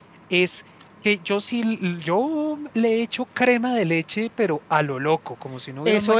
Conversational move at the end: taking over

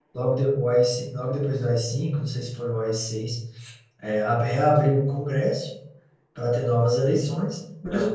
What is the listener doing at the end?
listening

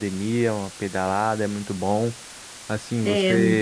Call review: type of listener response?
listening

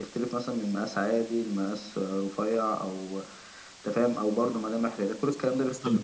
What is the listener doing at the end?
taking over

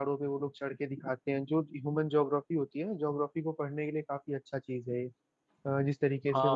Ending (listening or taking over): taking over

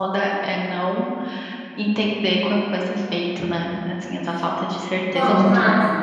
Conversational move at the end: taking over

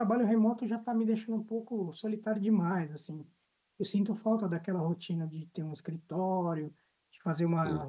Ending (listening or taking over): listening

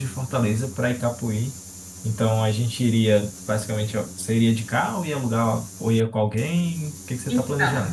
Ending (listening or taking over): taking over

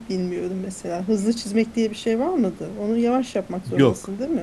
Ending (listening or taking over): taking over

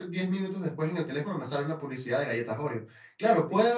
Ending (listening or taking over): listening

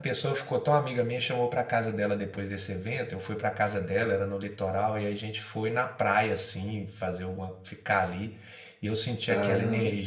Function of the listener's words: listening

